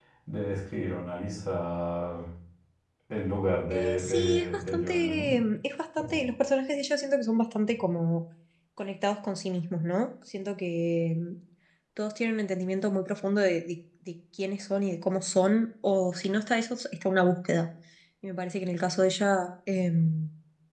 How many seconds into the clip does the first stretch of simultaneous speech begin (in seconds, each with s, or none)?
3.7 s